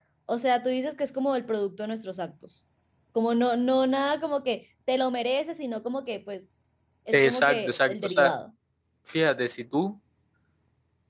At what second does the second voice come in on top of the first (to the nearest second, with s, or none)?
7 s